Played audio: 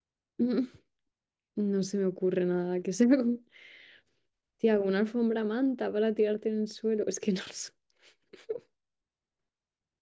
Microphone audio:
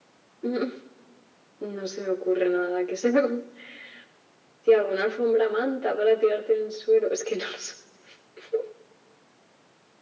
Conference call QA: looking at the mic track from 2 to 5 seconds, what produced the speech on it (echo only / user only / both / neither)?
echo only